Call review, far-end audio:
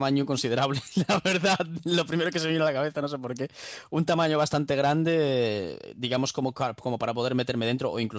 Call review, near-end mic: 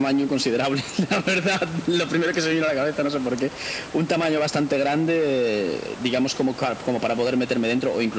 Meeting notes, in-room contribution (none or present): none